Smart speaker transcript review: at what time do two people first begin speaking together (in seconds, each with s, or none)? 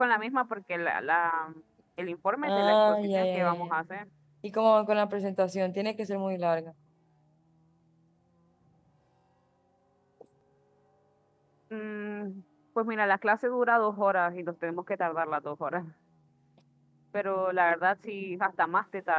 2.4 s